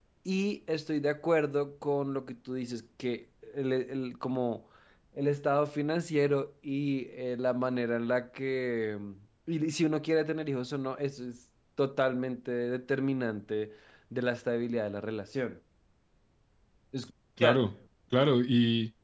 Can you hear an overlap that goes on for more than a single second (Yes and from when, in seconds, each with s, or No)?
No